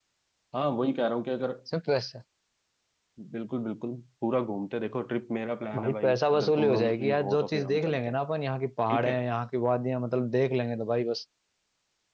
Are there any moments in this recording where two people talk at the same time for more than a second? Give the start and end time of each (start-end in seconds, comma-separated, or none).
5.8-8.2